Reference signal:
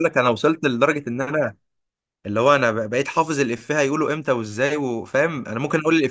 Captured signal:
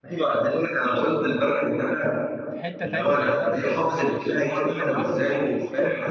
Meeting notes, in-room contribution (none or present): present